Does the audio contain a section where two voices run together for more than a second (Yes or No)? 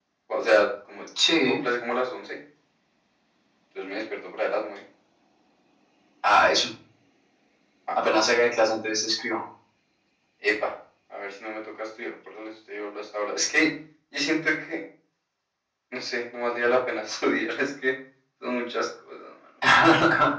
No